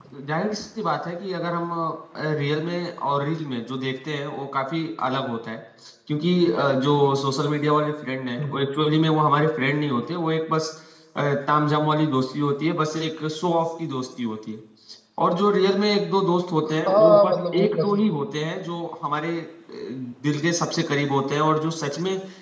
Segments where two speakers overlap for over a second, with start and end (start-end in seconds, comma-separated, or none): 16.6-17.9